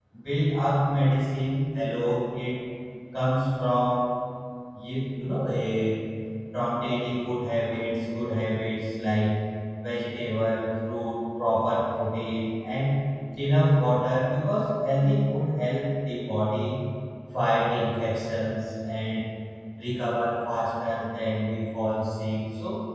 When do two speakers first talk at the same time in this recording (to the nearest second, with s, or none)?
none